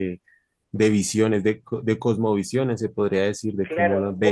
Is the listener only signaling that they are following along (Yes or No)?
No